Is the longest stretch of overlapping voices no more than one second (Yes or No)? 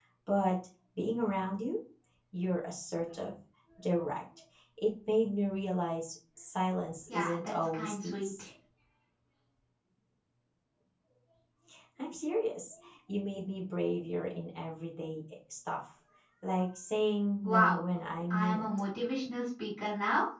No